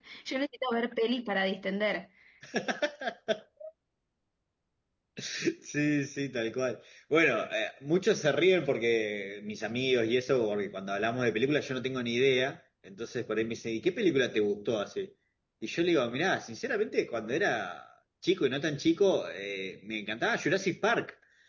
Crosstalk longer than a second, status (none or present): none